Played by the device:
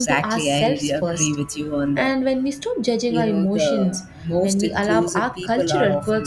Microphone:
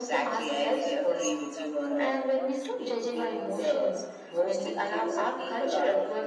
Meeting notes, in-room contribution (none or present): present